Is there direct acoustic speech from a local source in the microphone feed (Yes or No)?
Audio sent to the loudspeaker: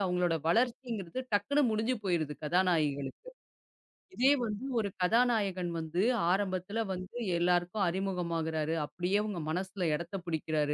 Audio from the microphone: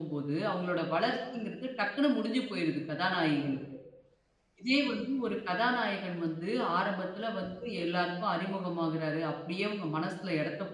No